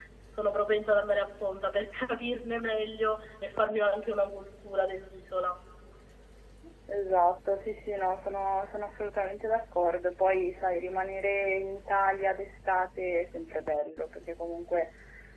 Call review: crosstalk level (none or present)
none